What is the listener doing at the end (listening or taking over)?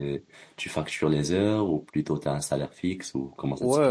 taking over